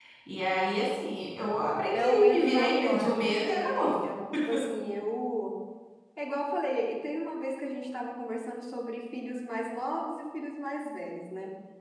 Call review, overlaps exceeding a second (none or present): present